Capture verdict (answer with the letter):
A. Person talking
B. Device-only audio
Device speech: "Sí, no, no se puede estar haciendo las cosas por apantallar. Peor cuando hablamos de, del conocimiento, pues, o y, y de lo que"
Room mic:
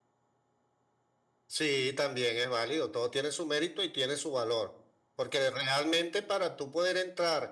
A